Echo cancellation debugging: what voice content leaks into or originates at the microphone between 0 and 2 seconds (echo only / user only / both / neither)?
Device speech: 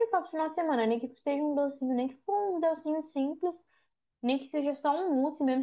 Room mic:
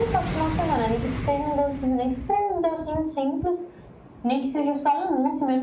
echo only